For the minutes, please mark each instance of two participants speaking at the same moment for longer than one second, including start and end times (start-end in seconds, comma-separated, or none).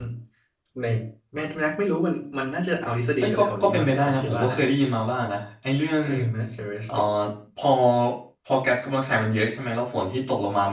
3.2-4.6